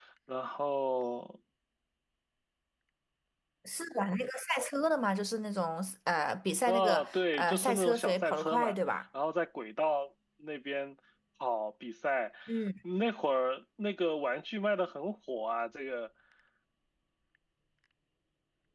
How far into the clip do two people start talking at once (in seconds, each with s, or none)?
6.7 s